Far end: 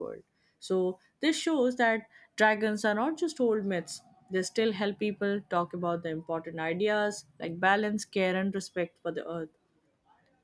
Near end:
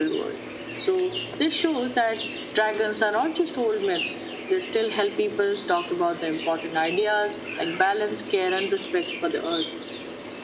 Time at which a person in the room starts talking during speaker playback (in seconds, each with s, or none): none